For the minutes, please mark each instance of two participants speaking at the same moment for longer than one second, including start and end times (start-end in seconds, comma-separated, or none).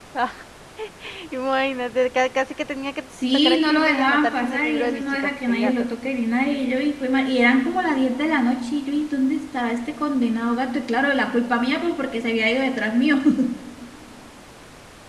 3.3-5.8